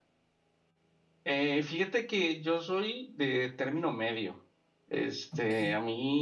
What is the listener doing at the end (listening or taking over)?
listening